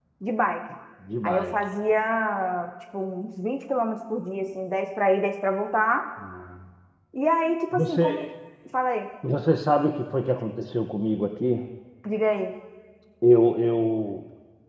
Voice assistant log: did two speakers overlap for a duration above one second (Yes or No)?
No